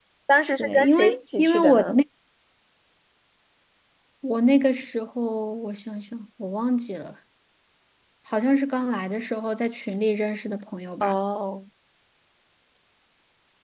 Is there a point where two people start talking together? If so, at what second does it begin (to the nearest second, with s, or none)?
1 s